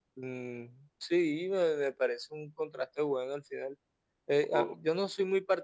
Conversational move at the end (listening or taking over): listening